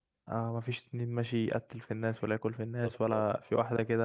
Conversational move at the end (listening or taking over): listening